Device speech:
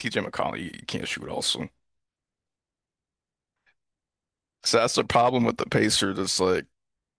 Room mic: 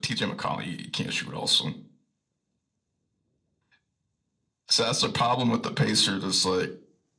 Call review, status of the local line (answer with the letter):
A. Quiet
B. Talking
A